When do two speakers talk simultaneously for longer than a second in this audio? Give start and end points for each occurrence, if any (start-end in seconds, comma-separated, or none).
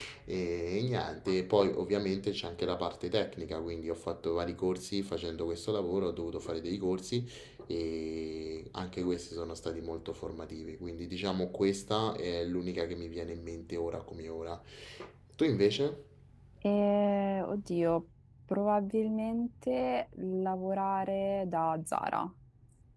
none